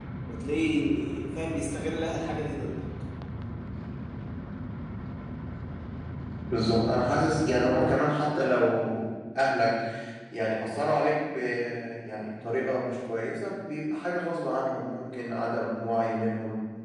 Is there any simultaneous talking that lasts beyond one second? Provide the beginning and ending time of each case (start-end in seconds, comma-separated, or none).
none